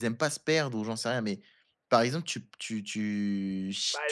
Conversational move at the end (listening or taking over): taking over